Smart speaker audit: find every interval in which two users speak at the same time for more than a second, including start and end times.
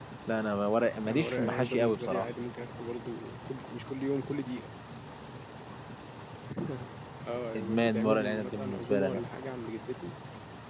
1.1-2.3, 7.5-9.2

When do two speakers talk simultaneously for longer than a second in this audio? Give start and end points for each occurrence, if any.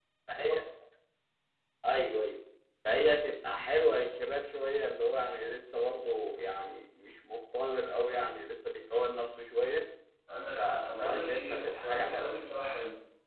10.6-12.4

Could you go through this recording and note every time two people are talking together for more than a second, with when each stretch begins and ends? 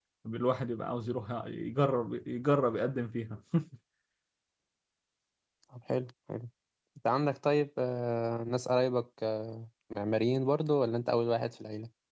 none

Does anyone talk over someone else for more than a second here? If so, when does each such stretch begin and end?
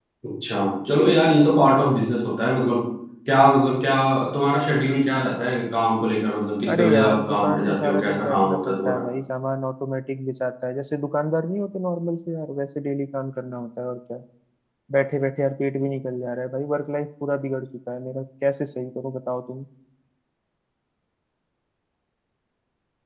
6.8-9.0

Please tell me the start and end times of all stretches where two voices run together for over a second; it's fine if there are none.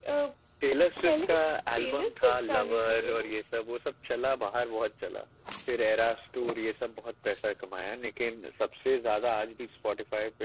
1.8-3.3

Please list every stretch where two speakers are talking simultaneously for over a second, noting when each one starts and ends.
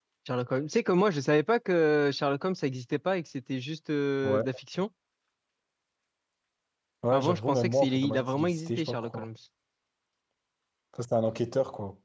7.1-9.3

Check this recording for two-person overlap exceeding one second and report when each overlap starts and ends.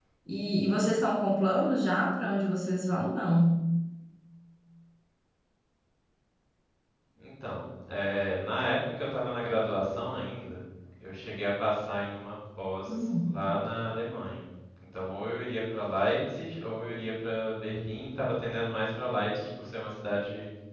none

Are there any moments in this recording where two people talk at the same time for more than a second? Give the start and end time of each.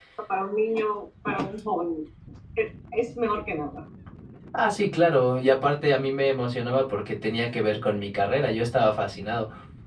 none

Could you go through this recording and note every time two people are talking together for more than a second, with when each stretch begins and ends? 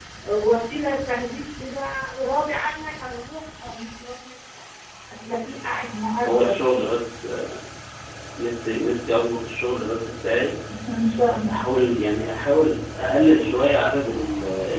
none

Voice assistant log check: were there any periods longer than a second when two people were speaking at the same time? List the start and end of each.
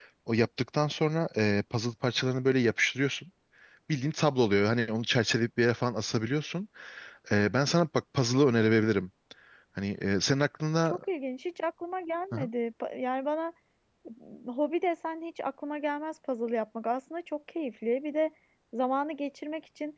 none

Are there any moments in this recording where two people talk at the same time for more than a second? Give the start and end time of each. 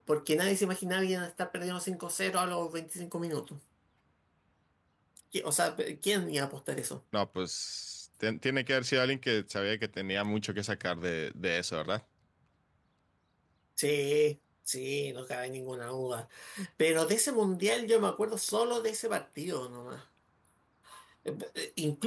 none

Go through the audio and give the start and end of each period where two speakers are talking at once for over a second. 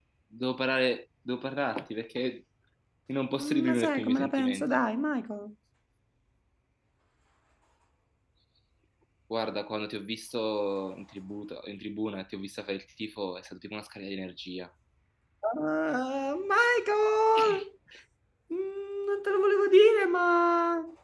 3.4-4.6

